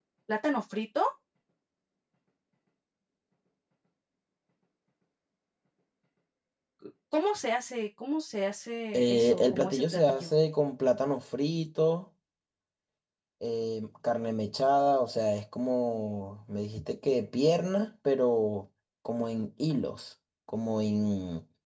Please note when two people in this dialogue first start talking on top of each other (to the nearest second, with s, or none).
9 s